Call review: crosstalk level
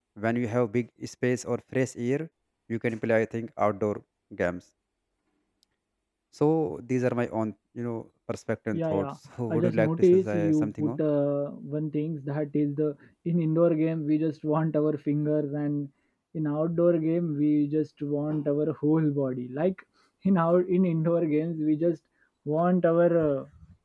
present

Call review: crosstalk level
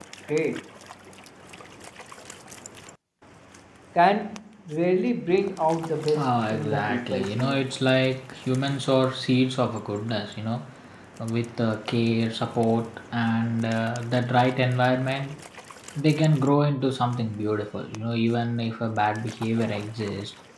present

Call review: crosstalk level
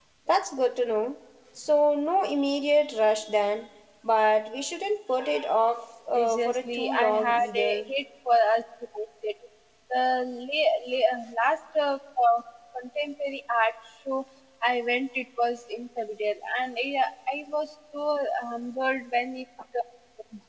present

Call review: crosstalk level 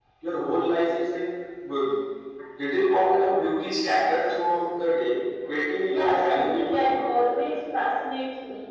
present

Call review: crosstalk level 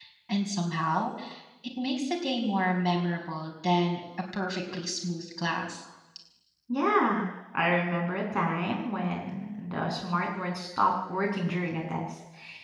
none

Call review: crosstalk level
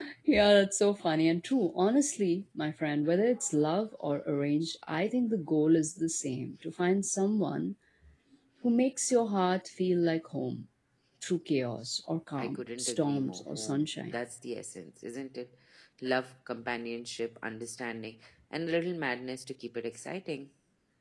present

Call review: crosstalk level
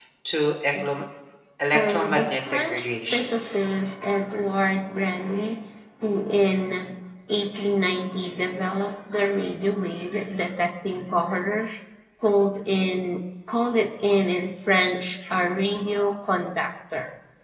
present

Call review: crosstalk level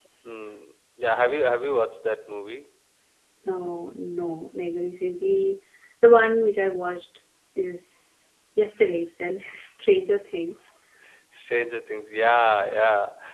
none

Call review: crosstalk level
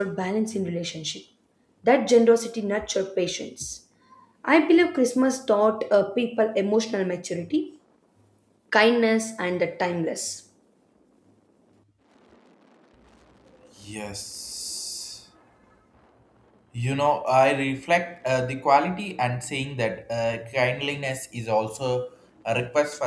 none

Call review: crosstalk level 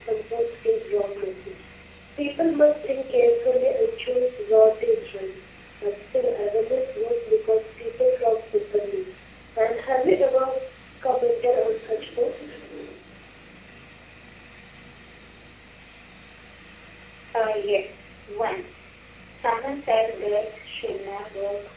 none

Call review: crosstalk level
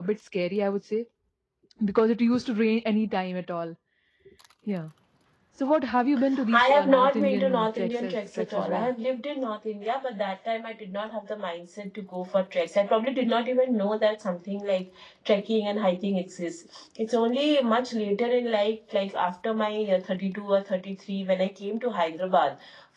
present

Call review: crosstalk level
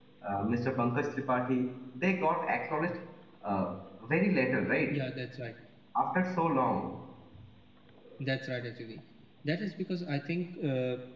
none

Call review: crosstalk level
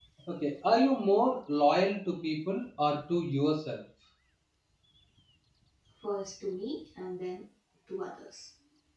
none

